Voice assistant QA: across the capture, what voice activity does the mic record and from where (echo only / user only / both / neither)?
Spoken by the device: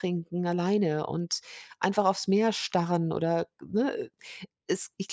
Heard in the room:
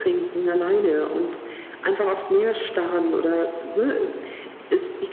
echo only